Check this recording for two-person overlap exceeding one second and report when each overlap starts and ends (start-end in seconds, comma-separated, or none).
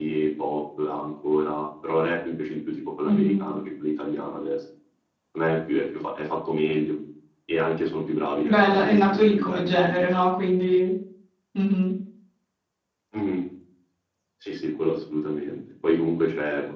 8.4-10.2